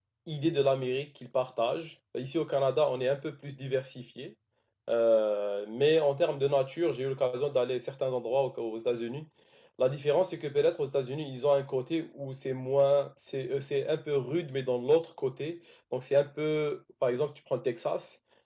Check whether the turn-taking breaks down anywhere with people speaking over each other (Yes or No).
No